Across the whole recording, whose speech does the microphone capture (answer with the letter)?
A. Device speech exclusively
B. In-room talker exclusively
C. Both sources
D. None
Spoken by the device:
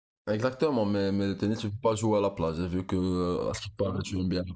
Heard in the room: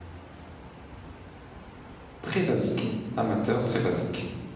B